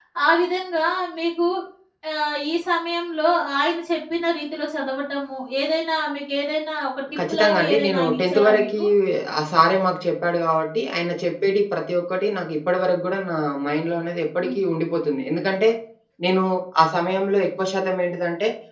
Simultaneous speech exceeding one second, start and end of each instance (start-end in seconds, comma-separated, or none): 7.3-8.8